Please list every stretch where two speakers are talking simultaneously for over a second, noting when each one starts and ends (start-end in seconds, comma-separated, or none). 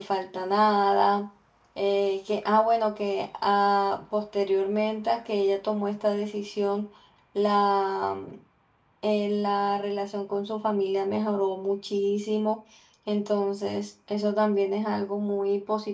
none